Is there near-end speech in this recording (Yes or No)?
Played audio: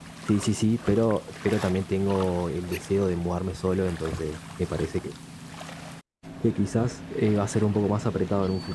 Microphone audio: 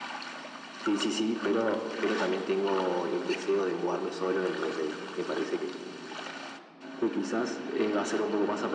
No